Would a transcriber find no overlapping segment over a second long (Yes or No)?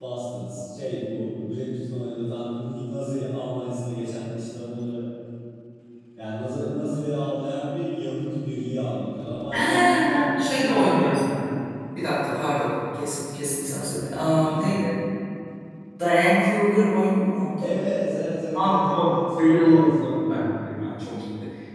No